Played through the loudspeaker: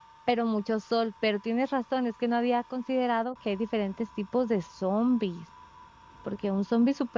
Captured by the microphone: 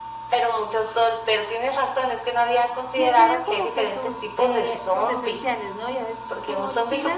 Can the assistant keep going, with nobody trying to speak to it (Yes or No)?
No